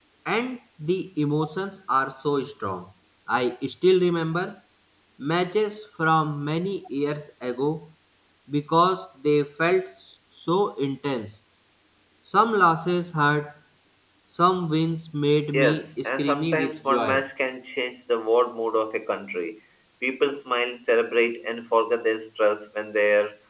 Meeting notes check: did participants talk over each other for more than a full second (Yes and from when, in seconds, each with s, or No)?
Yes, from 15.5 s